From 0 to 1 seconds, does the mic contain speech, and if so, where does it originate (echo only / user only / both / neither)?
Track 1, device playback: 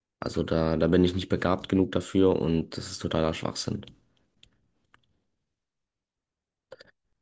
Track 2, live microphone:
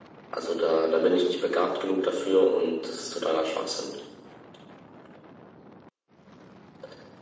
echo only